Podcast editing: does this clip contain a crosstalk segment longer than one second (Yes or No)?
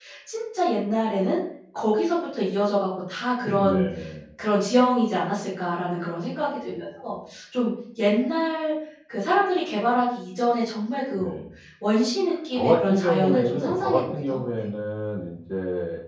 Yes